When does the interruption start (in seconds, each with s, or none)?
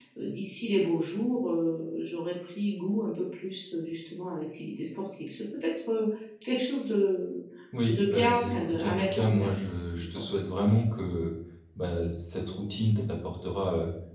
7.9 s